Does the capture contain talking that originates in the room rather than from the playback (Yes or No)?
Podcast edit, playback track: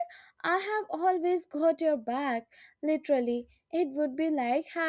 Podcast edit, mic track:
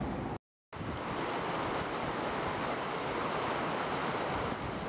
No